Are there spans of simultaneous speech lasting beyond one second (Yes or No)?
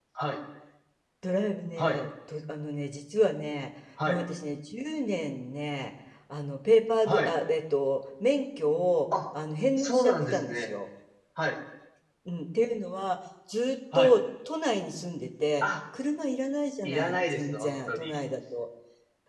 Yes